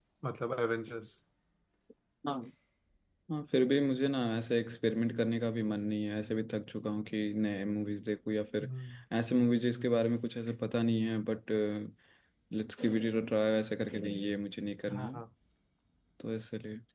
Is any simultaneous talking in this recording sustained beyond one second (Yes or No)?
No